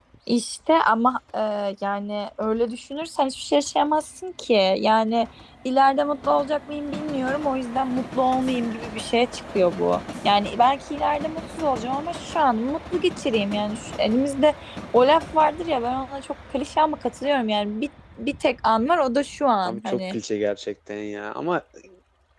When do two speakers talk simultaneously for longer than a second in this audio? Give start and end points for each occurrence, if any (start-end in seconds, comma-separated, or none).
none